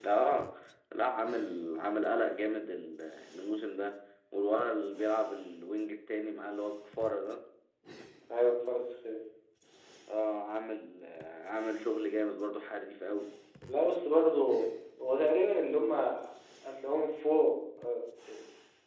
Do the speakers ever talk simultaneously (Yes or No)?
No